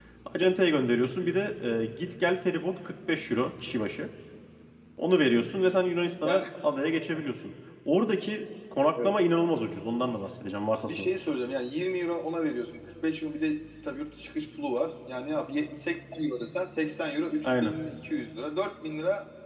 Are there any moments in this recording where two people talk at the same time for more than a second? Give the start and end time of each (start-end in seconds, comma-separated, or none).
none